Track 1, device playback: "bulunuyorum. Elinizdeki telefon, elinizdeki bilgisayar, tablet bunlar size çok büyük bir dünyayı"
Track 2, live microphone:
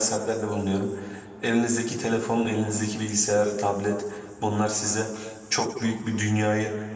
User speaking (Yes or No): No